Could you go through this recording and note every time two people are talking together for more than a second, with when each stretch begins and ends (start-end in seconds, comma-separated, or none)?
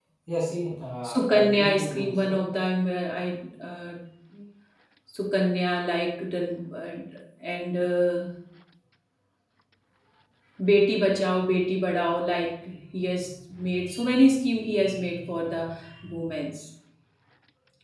1.0-2.4